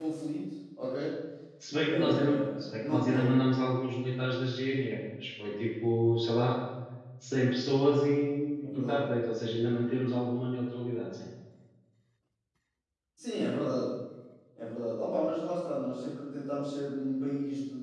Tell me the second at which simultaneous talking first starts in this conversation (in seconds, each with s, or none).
1.9 s